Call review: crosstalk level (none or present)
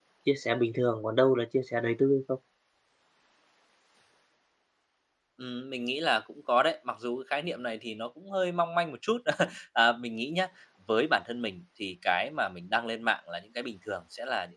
none